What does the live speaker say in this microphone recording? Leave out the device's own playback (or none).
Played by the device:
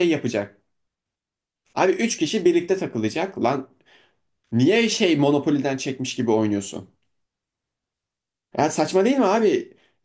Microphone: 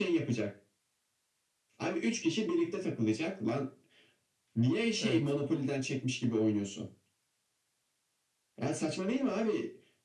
Evet.